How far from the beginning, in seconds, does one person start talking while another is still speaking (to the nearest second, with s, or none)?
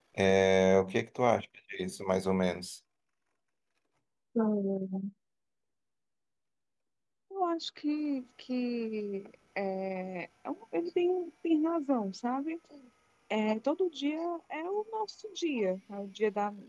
none